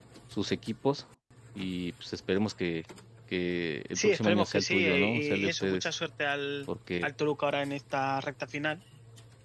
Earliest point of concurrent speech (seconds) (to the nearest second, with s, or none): 4 s